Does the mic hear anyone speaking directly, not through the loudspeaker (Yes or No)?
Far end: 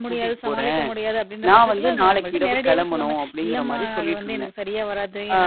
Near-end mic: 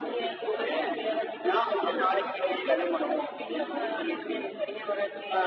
No